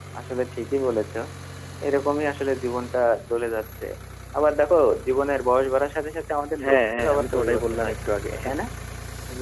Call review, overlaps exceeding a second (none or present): present